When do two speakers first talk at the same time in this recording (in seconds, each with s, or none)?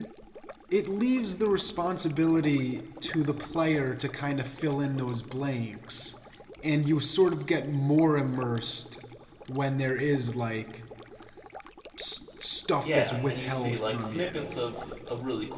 12.8 s